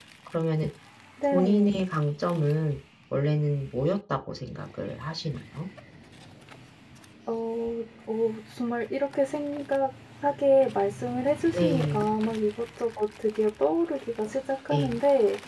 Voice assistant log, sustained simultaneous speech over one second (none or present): none